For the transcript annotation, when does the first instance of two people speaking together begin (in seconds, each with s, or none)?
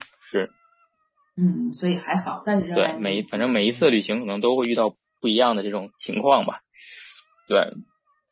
2.8 s